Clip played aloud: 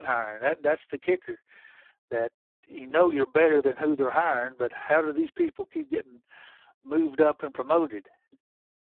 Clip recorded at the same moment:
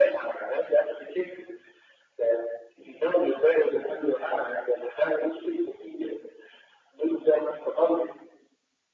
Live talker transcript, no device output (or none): none